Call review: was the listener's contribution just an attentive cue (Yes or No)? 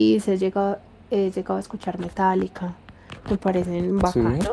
Yes